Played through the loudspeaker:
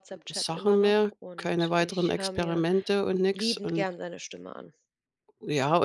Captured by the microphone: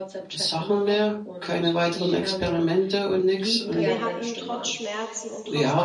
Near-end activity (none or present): present